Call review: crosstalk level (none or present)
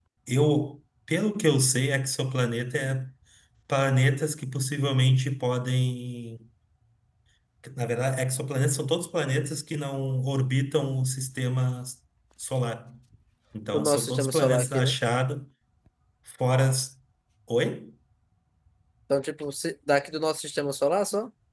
present